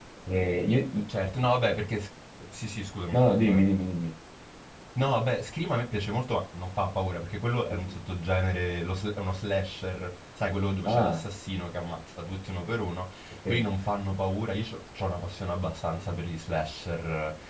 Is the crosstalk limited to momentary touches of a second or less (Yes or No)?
Yes